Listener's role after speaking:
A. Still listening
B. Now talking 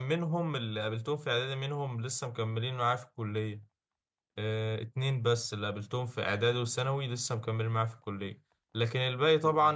A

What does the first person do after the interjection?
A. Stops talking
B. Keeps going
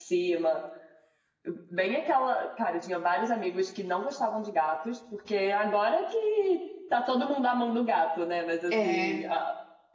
B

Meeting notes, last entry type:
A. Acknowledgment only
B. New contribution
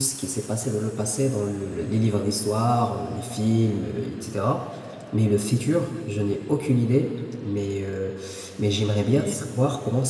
A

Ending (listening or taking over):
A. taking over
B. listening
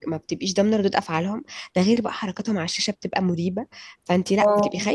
B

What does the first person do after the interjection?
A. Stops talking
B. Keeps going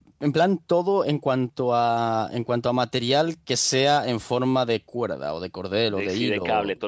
A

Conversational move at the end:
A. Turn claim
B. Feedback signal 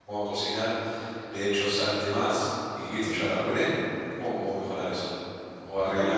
A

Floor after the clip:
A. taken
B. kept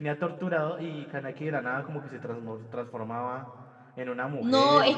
A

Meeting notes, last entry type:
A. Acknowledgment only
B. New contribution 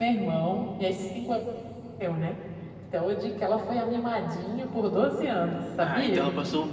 B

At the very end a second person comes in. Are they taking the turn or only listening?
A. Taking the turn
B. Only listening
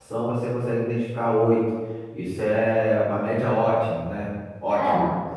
B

